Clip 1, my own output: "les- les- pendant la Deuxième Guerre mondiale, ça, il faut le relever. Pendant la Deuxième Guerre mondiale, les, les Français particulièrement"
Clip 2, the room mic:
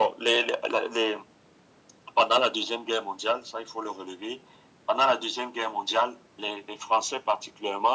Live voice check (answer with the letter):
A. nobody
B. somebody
A